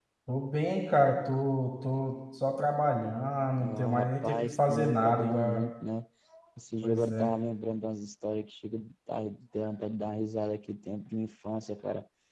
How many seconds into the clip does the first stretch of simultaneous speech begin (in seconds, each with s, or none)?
3.6 s